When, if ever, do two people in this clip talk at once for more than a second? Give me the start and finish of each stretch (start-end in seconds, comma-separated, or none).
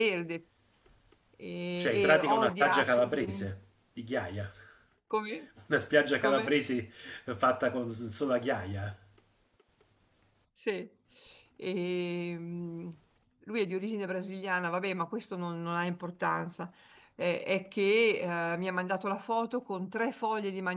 1.7-3.5